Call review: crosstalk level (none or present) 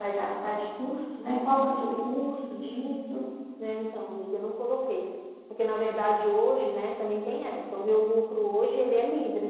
none